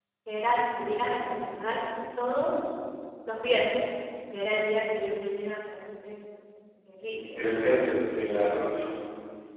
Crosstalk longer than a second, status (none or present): none